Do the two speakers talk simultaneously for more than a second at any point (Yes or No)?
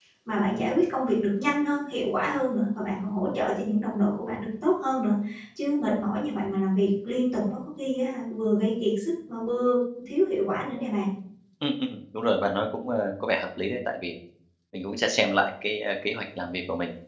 No